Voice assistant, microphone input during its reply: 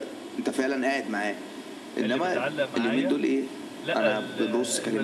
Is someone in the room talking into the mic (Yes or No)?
Yes